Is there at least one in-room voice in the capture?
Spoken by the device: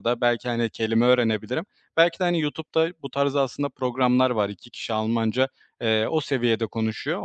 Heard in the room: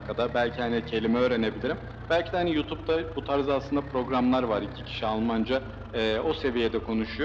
No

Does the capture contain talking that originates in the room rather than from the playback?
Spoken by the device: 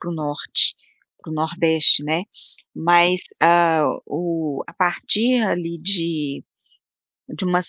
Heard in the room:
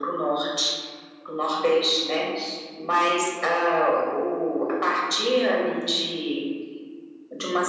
No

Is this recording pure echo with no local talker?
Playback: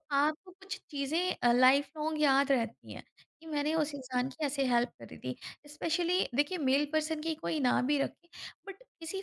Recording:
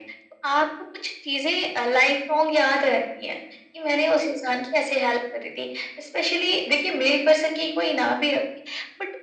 Yes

